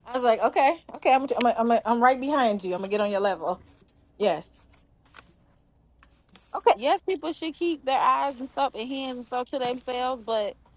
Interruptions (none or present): none